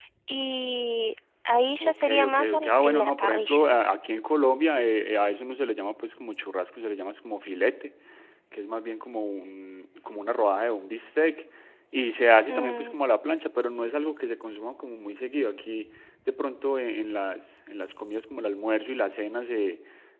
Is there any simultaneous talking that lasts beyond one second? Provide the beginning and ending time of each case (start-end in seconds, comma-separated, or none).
1.8-3.6